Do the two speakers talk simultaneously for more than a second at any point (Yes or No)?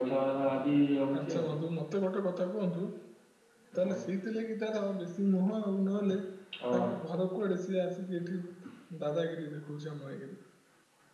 No